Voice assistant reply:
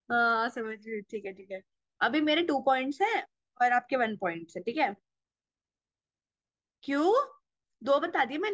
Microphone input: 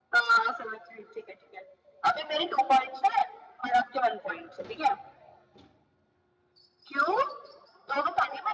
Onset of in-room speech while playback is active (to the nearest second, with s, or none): none